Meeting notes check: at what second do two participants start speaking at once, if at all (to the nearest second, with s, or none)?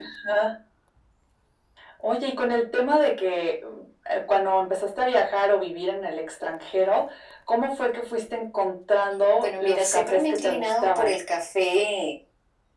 9 s